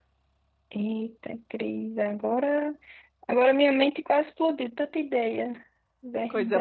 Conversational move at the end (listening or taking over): taking over